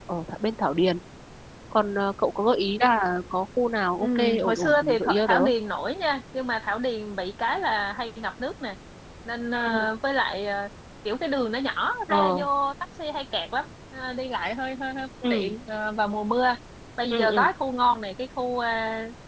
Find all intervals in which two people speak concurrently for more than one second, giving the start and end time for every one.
4.0-5.4

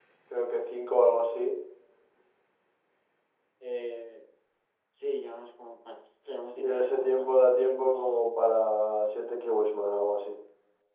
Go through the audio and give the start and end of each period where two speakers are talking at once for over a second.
6.5-8.1

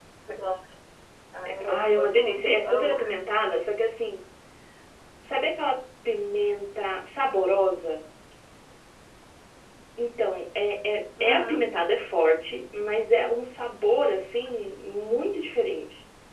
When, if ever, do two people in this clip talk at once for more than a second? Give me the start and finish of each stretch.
1.7-3.0

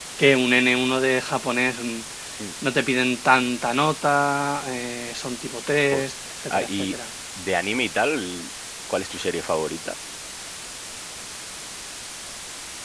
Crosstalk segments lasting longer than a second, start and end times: none

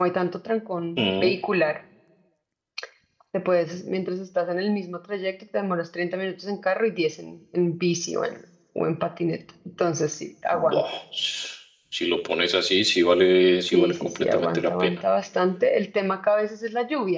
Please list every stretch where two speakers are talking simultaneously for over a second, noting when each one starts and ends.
13.7-15.0

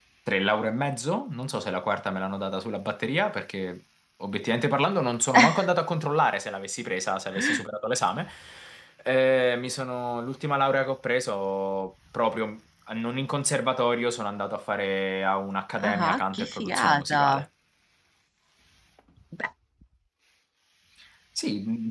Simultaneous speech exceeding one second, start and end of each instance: 15.8-17.4

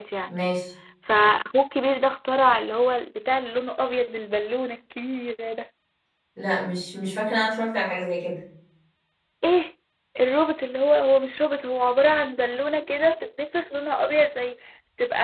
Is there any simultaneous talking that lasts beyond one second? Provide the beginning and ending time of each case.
none

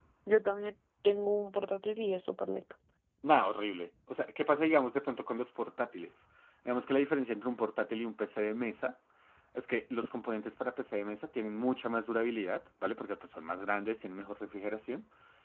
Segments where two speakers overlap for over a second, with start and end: none

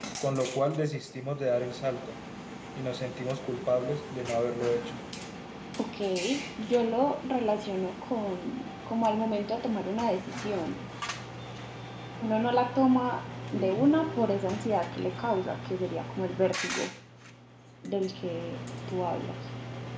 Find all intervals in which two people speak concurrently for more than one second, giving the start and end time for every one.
none

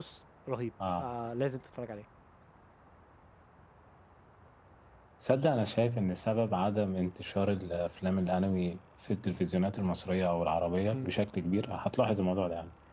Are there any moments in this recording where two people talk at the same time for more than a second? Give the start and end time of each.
none

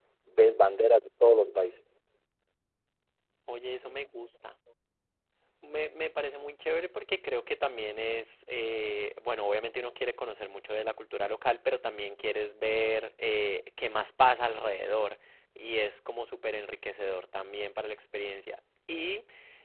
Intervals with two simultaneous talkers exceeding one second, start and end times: none

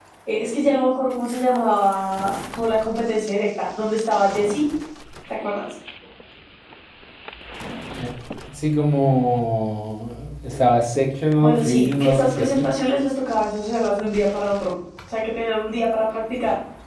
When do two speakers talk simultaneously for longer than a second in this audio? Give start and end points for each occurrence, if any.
11.4-12.7

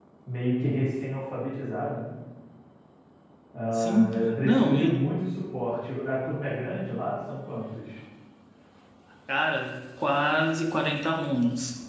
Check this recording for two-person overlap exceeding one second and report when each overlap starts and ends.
3.7-4.9

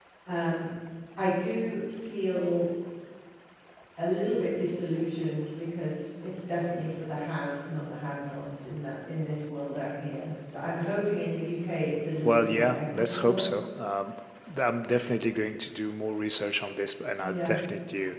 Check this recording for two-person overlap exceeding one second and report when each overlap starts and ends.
12.2-13.5

